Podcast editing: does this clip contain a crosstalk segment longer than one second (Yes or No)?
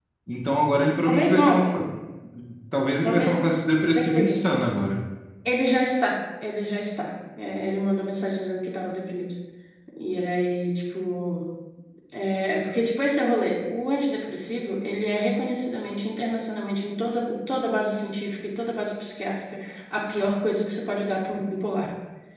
Yes